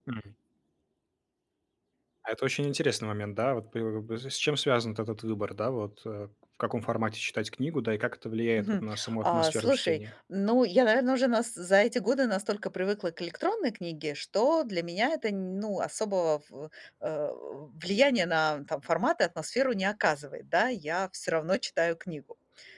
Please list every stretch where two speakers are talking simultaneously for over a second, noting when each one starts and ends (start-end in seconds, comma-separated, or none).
8.6-10.0